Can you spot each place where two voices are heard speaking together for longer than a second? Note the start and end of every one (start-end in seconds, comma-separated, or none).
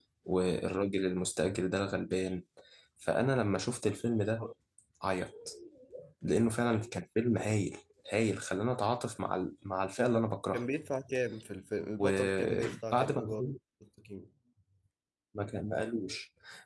12.0-13.4